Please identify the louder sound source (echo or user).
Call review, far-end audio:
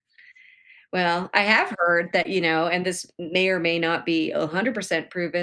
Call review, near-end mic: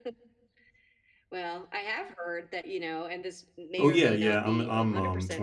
user